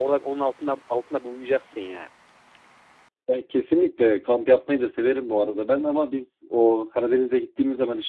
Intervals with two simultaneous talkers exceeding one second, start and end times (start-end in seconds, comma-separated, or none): none